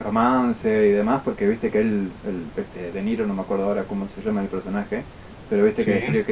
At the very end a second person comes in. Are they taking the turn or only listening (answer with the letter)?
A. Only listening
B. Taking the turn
A